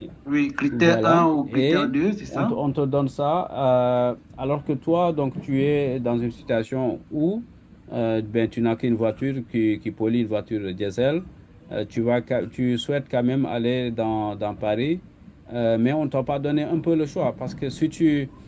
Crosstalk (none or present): present